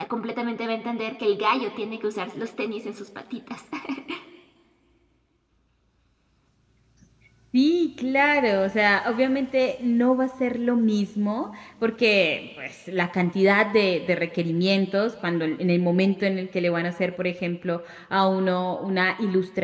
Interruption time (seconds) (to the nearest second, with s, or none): none